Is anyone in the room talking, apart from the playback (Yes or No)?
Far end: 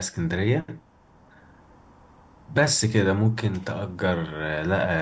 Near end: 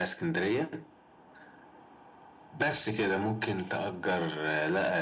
No